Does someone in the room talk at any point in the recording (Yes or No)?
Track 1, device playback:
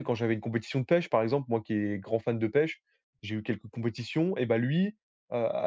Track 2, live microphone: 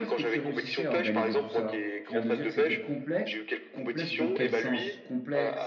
Yes